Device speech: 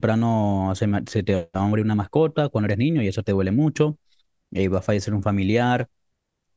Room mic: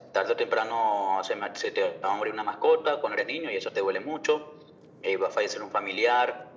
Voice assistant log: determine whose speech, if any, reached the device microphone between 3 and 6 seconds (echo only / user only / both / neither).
echo only